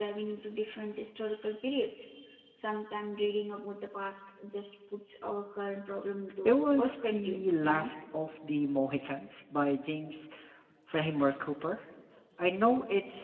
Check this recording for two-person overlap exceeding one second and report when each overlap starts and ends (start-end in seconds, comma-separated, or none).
6.5-7.9